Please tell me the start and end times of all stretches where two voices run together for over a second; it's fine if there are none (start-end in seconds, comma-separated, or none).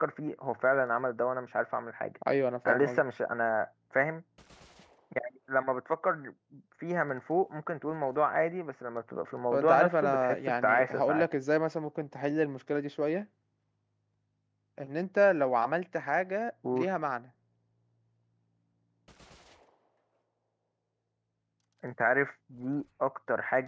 9.5-11.2